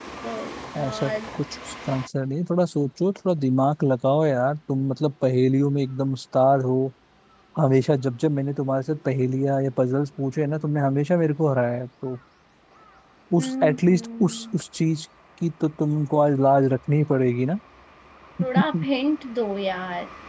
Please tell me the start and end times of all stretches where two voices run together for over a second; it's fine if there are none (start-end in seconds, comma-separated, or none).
13.4-14.6